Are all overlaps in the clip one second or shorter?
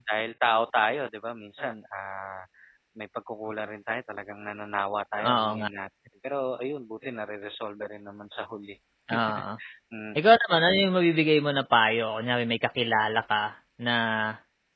Yes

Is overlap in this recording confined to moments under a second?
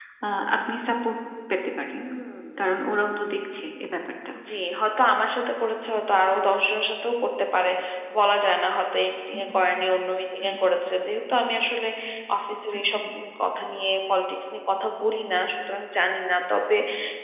Yes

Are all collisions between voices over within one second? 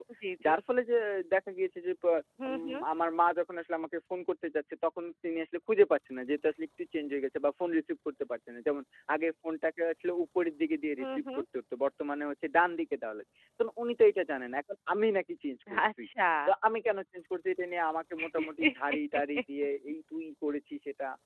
Yes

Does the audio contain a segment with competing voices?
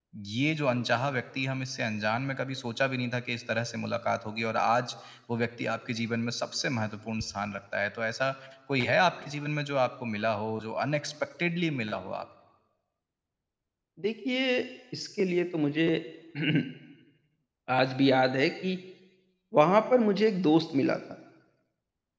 No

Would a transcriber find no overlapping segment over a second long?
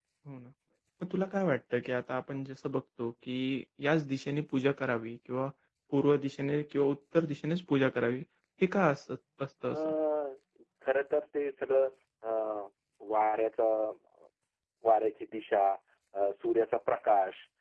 Yes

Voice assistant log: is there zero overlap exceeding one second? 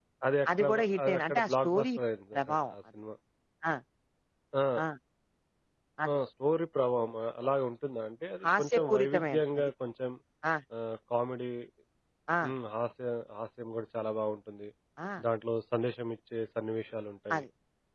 No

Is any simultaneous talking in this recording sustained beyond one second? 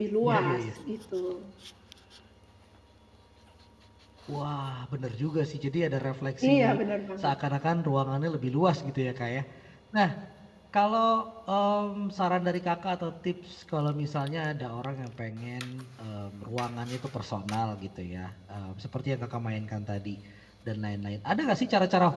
No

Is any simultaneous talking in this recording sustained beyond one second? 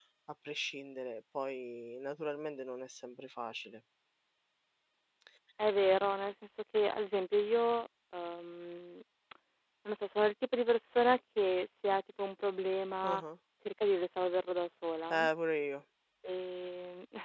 No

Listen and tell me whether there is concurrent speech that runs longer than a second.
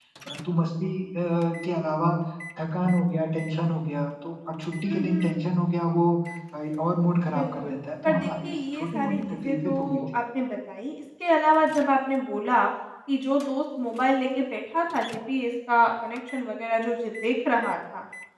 Yes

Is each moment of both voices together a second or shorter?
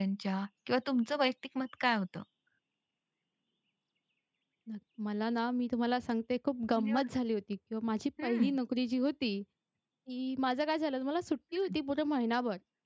Yes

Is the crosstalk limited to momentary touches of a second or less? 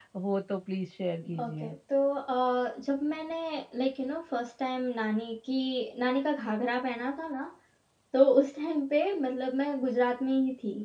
Yes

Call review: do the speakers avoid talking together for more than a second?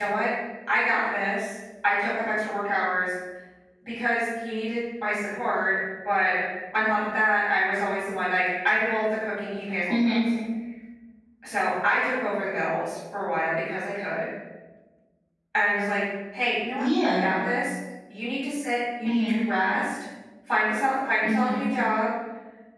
Yes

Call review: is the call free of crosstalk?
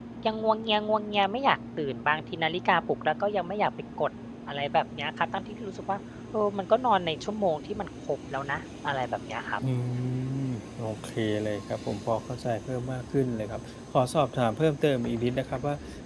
Yes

